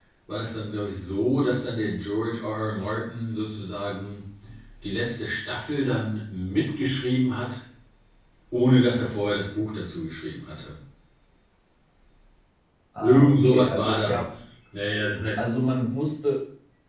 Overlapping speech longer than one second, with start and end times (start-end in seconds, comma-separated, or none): 13.0-14.3